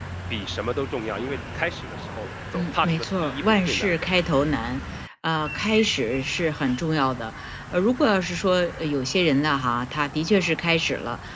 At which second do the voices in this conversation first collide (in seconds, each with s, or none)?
2.5 s